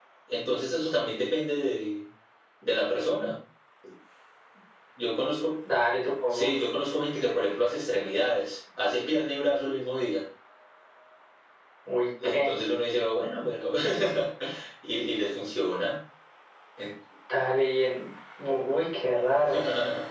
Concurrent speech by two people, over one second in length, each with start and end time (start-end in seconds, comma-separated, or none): none